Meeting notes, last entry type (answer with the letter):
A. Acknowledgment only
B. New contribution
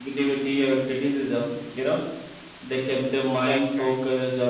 A